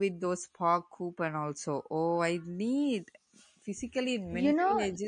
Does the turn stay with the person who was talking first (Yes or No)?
No